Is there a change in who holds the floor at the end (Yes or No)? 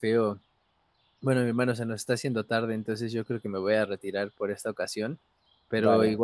No